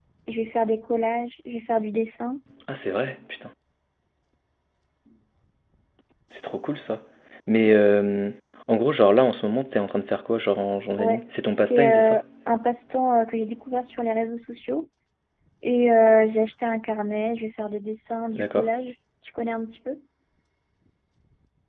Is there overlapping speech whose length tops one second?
Yes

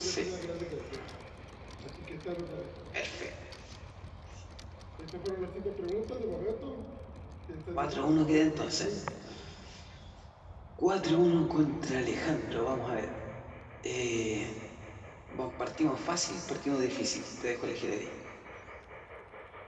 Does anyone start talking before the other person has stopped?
Yes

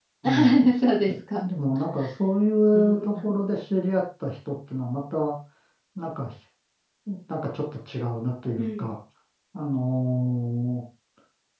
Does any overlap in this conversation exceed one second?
No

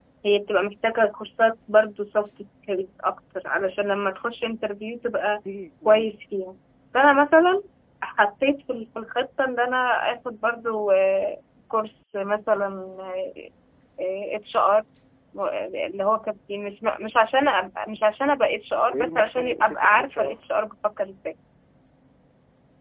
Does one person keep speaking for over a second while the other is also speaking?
Yes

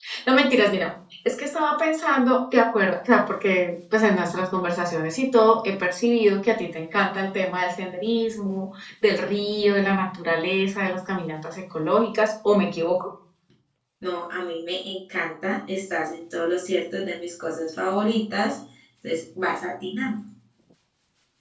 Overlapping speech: No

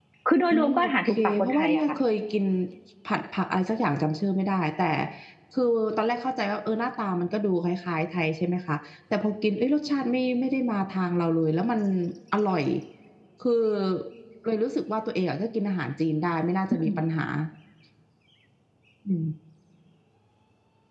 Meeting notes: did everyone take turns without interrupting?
No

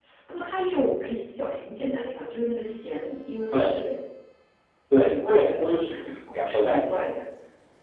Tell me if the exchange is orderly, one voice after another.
No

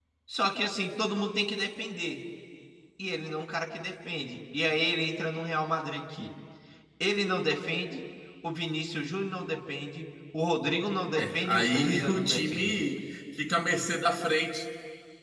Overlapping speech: Yes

